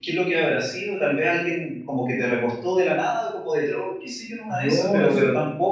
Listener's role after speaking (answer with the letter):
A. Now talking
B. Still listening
B